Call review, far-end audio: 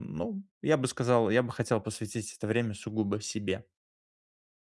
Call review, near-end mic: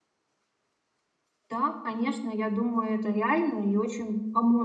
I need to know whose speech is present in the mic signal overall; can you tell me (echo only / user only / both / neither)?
user only